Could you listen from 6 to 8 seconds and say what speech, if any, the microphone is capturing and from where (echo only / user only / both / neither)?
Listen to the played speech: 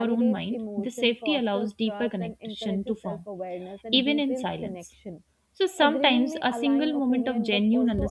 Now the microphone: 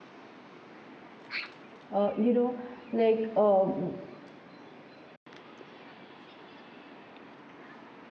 neither